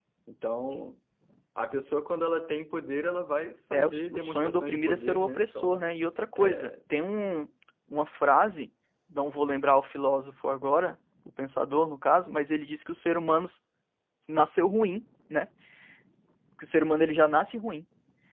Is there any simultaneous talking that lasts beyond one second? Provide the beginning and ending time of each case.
3.7-5.8

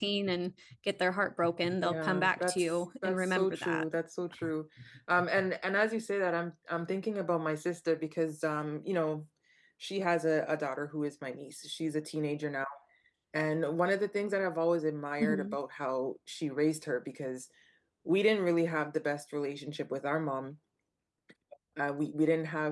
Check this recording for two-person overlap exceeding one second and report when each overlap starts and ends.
1.8-3.8

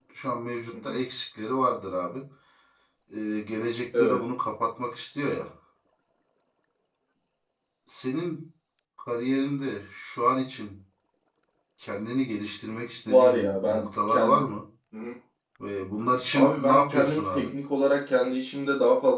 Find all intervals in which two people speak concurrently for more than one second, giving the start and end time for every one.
13.1-14.5, 16.3-17.5

